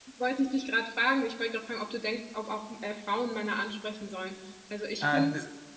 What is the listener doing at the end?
taking over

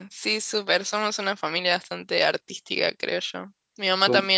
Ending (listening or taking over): listening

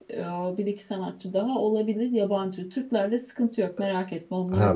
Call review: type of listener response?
taking over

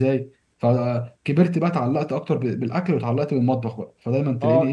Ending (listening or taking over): taking over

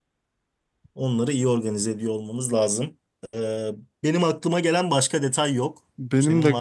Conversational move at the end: taking over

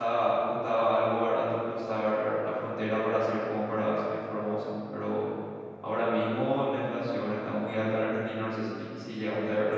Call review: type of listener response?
taking over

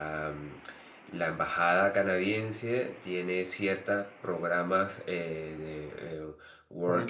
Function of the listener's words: listening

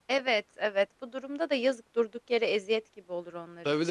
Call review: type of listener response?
taking over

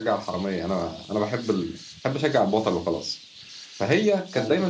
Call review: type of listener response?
listening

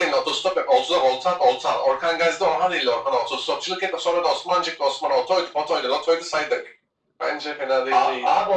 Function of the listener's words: taking over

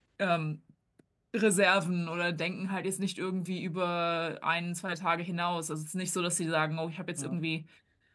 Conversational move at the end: listening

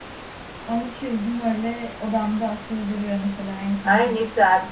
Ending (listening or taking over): taking over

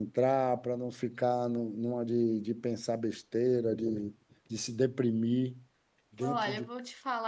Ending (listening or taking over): taking over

